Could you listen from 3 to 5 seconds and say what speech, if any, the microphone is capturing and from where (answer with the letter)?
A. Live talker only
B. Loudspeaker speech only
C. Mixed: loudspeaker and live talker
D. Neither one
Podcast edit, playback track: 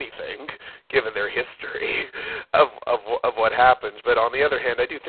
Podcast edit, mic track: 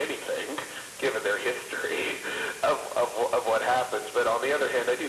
B